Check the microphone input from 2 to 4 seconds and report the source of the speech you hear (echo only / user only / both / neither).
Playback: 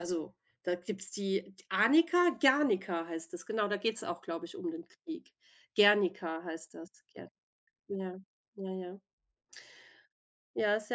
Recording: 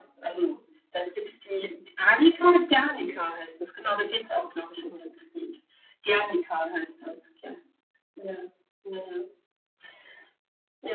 echo only